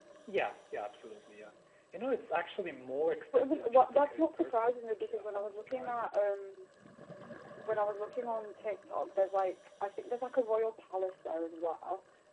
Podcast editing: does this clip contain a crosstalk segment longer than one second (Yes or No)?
Yes